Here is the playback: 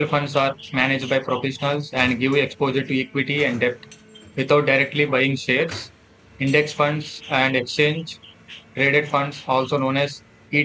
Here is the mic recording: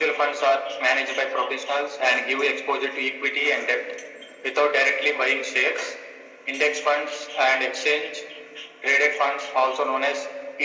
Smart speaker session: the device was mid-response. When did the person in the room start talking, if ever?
none

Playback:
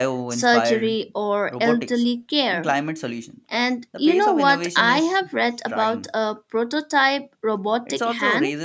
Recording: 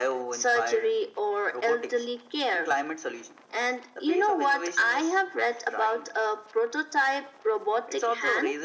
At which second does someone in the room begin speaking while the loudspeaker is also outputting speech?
none

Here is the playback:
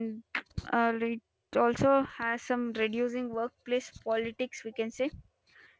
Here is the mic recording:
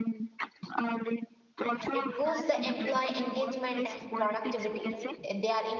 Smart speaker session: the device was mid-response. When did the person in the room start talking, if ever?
2 s

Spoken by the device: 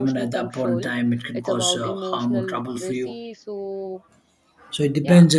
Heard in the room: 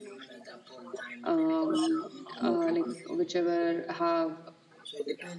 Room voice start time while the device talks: 1 s

